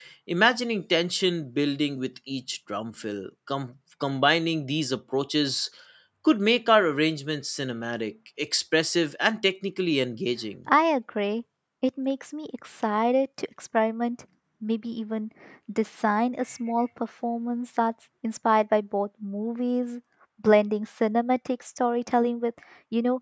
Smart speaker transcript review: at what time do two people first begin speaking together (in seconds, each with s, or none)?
none